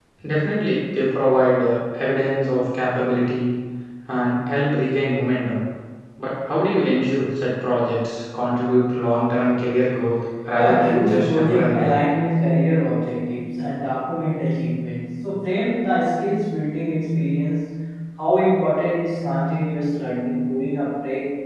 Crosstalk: present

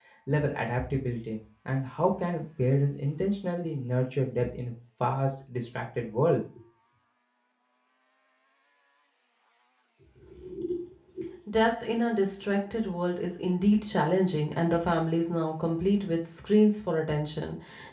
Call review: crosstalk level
none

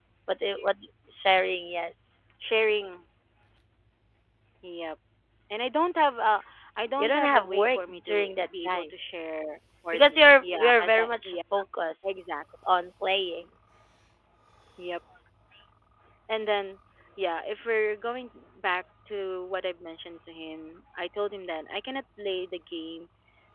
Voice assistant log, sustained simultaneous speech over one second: present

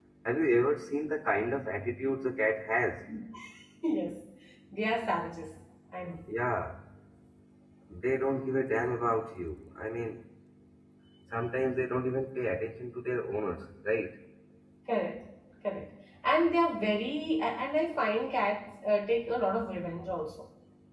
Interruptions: none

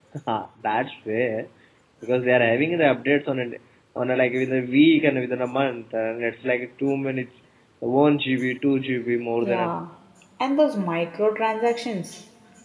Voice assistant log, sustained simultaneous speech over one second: none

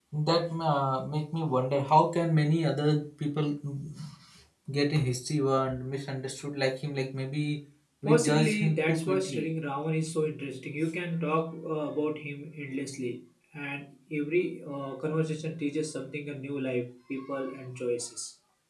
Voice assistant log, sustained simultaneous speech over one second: present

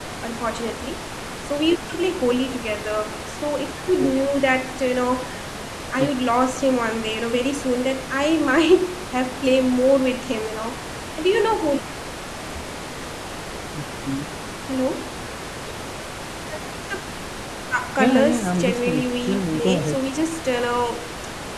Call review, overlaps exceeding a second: present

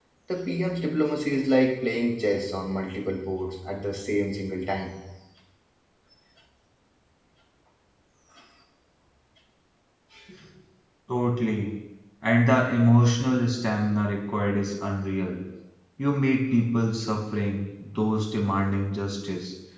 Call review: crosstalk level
none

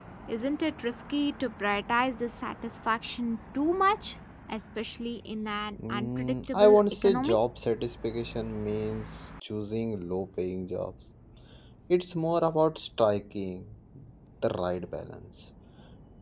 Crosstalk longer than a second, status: present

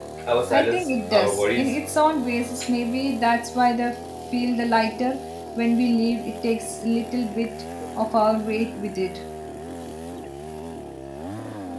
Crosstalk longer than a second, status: present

